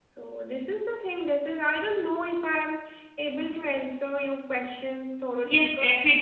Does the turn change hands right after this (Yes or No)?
Yes